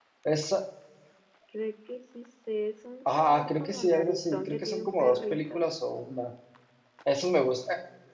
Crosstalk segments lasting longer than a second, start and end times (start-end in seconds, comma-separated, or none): 3.2-5.6